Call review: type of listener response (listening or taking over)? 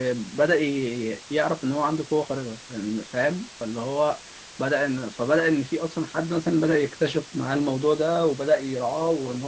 listening